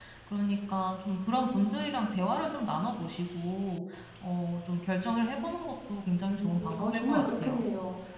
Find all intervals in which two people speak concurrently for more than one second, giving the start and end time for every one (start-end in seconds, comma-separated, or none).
6.4-7.7